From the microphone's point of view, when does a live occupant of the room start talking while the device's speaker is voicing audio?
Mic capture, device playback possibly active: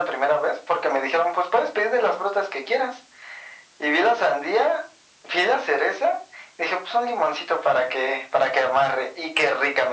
none

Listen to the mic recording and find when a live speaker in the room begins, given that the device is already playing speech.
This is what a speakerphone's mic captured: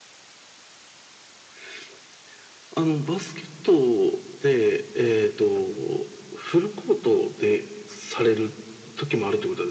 none

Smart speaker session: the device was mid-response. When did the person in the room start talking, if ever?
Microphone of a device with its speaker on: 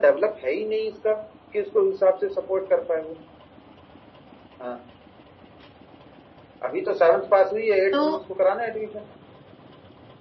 8 s

